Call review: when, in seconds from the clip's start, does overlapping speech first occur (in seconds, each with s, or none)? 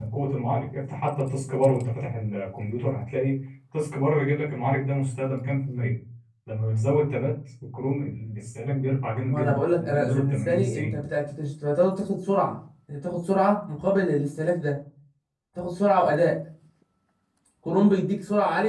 9.2 s